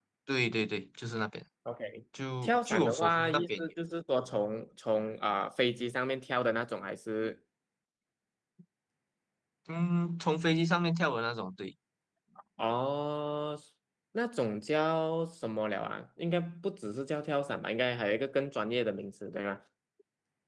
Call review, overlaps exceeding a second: present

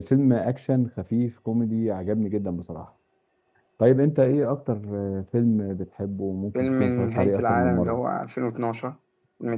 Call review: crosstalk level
present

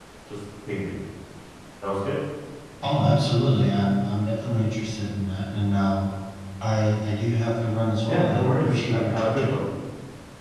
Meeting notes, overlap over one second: present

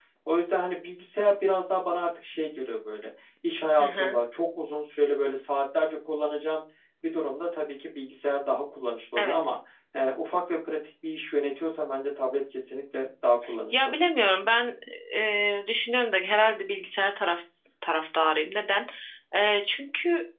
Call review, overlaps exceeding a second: none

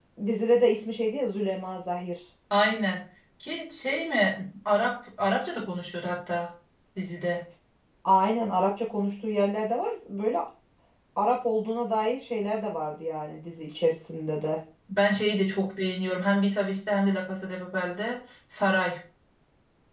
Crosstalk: none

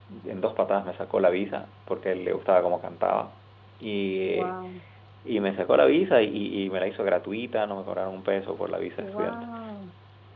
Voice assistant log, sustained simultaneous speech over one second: none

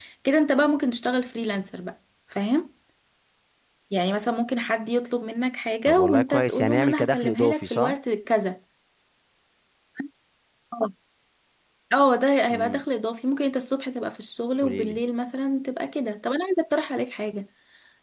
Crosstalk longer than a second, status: present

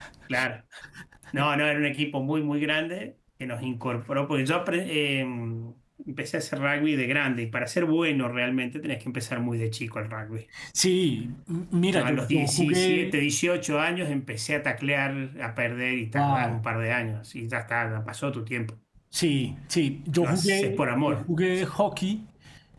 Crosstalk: present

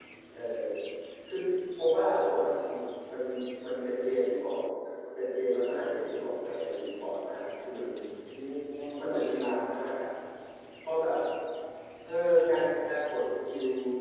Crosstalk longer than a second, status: none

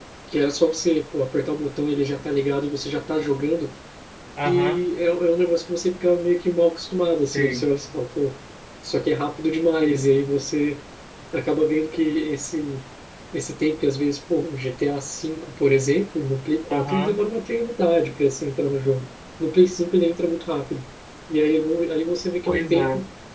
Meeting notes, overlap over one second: none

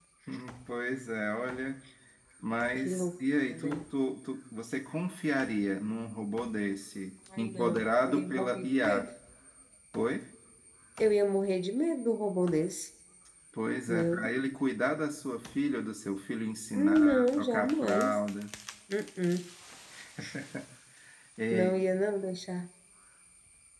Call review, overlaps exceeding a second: present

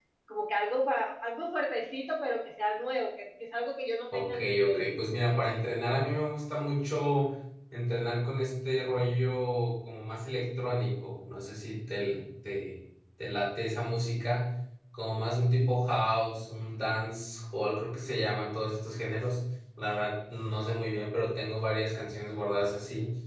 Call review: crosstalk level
present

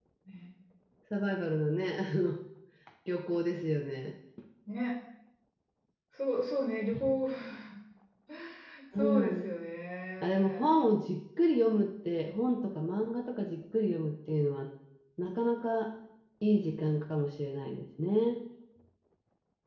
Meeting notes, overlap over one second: none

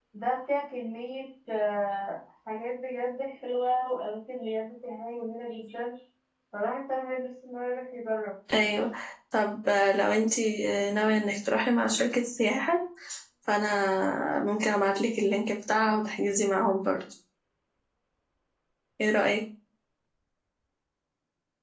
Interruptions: none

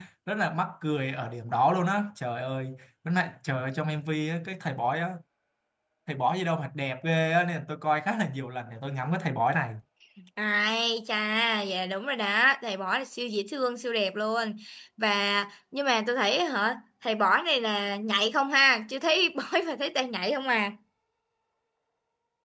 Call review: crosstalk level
none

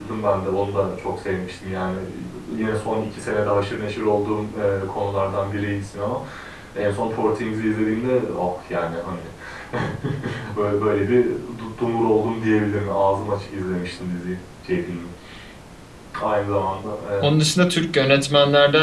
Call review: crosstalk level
none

